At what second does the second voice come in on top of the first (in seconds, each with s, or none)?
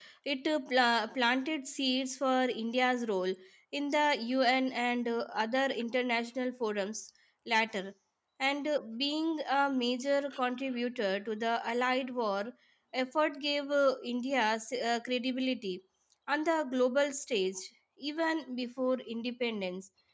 none